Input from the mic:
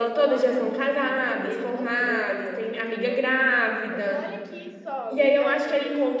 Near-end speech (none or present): present